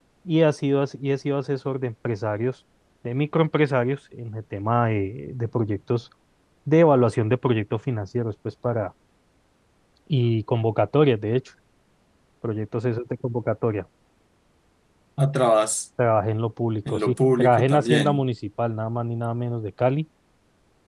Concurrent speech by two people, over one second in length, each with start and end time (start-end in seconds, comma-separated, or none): 16.9-18.2